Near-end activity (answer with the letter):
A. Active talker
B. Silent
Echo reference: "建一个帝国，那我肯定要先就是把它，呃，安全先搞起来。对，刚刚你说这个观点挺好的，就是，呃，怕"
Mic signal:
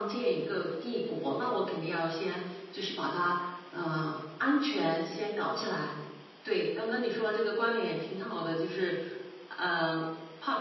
B